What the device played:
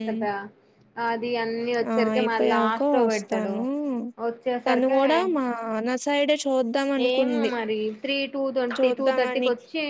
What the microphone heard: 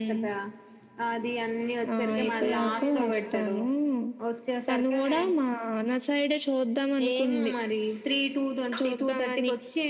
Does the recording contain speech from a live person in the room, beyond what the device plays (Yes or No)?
Yes